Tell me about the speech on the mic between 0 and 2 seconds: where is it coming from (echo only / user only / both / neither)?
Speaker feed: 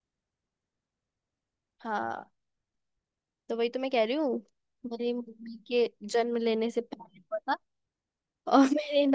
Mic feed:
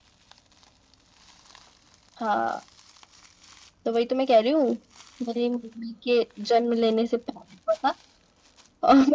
neither